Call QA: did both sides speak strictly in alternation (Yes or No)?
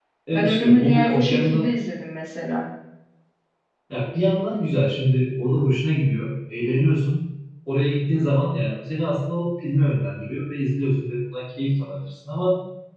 No